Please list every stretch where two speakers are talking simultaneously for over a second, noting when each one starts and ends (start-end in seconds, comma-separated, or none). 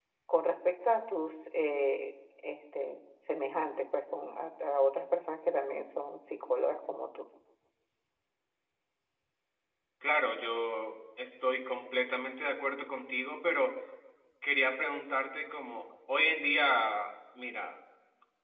none